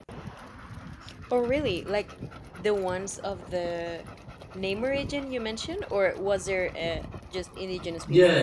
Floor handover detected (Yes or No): Yes